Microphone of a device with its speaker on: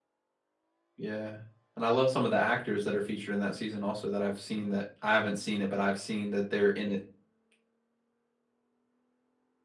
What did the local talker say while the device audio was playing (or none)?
none